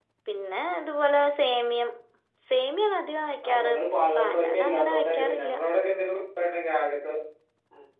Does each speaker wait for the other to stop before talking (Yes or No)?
No